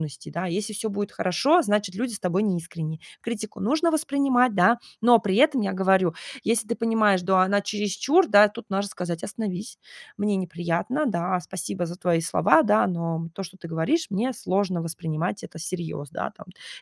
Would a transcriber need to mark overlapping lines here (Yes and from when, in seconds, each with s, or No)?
No